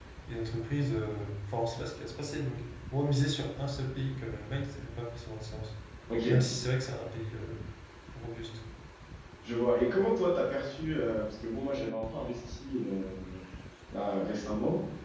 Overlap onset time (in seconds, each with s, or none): none